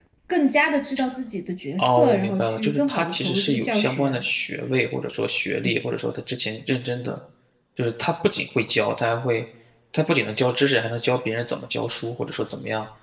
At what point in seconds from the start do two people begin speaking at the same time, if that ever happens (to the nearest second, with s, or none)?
2 s